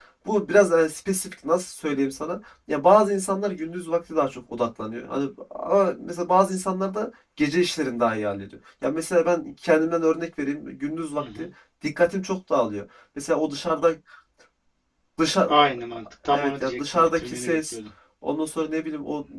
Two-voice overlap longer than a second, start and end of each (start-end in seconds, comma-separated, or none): 16.3-17.8